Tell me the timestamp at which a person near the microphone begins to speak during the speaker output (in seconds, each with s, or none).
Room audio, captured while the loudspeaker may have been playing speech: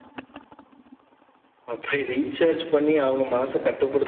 none